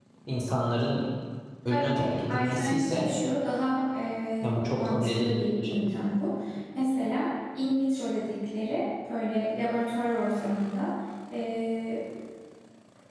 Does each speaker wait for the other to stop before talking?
No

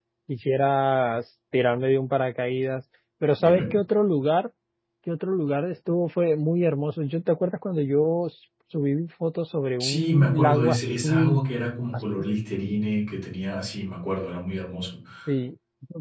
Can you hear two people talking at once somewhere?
Yes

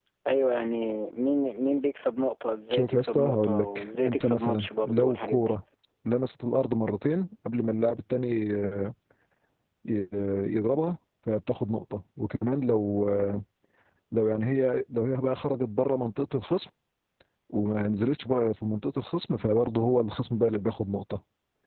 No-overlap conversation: No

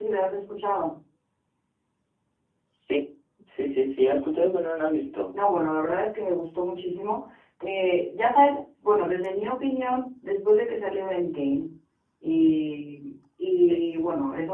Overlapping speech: No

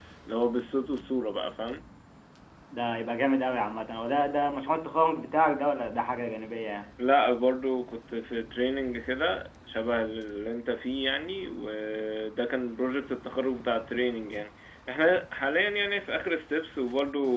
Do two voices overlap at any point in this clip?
No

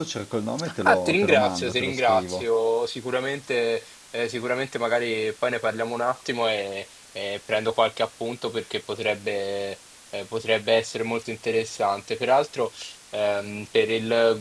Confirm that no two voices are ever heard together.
No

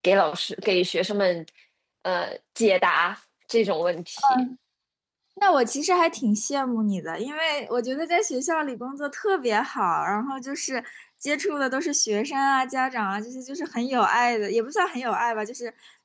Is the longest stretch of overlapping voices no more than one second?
Yes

